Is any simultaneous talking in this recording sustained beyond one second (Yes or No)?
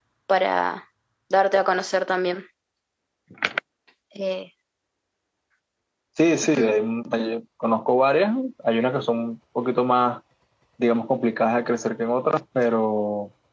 No